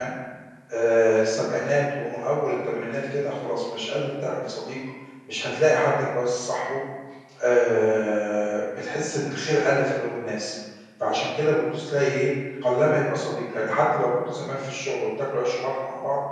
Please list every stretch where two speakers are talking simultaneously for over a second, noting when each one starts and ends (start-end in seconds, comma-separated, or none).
none